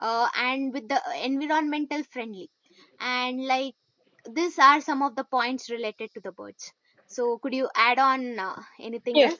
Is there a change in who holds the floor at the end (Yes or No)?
Yes